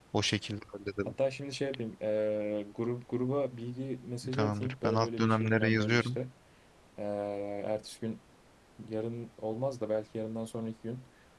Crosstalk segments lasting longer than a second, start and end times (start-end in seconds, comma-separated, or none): 4.3-6.2